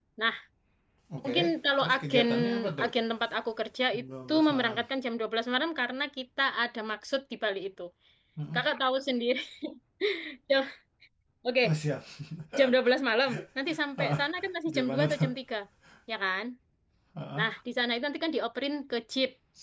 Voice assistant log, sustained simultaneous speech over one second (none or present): present